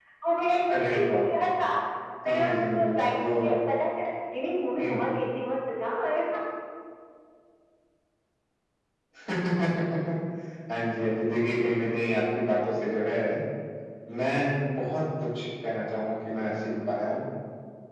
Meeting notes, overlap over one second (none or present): present